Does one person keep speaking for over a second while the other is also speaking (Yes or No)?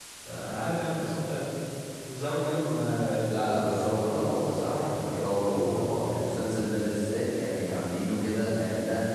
Yes